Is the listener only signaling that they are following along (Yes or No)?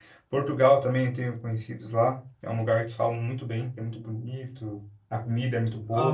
No